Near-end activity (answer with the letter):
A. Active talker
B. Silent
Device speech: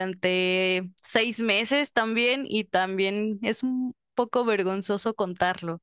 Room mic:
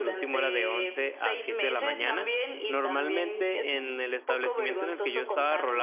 A